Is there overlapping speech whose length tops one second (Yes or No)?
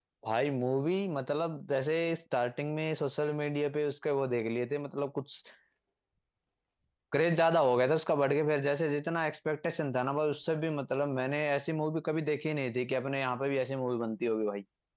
No